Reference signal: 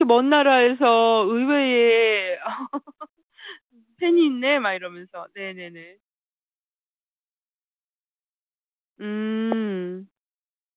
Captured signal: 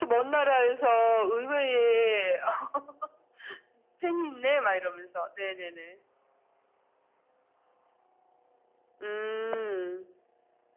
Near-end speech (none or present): none